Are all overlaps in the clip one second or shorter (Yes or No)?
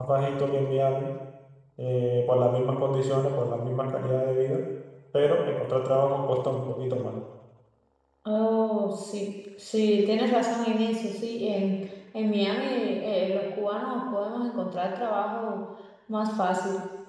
Yes